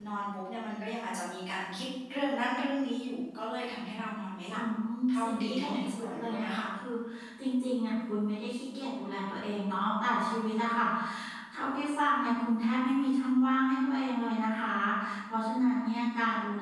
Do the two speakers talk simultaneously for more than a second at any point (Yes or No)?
Yes